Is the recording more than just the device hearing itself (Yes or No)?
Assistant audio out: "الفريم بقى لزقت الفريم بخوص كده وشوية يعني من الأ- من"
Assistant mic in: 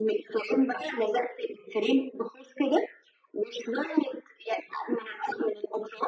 No